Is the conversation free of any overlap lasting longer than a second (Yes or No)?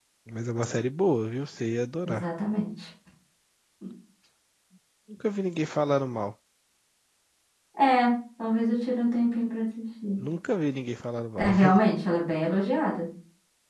Yes